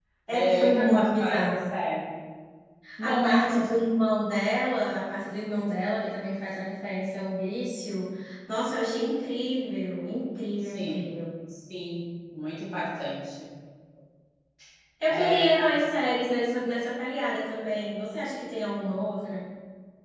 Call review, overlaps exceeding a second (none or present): present